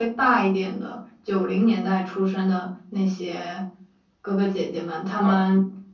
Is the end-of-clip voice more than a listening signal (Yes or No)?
Yes